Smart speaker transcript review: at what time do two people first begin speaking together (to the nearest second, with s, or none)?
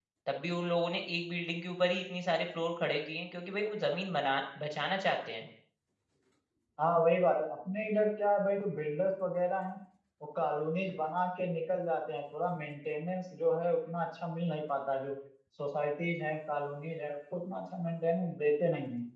none